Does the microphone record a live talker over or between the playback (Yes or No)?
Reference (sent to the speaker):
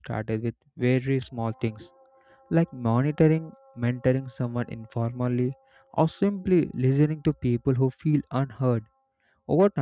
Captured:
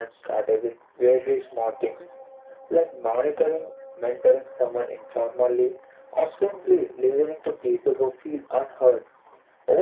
No